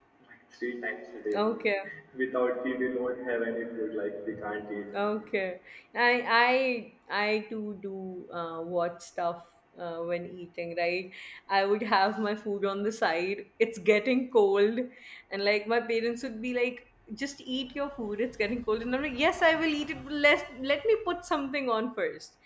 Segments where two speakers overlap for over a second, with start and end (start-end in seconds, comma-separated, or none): none